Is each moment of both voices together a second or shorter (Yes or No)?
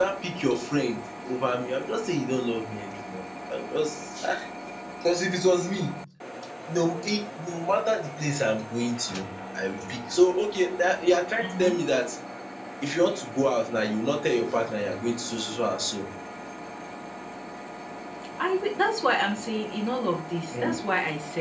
Yes